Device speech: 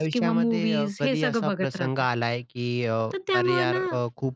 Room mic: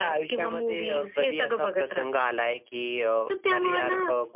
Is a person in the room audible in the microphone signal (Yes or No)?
No